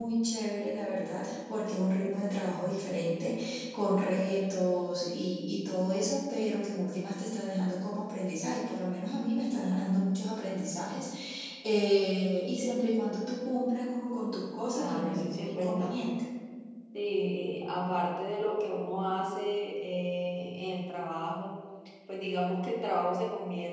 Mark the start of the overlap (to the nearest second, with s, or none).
15 s